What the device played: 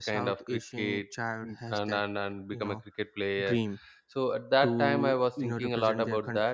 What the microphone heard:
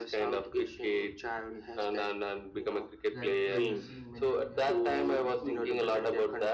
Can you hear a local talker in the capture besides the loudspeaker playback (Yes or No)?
Yes